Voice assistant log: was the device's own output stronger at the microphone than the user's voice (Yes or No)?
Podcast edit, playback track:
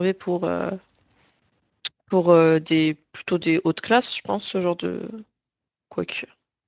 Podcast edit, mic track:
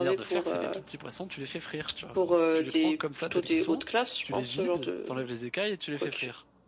Yes